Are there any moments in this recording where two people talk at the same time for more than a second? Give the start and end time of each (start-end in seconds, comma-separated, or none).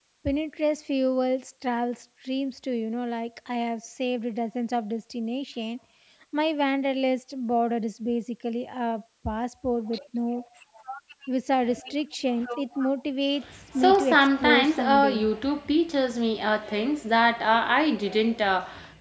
13.8-15.3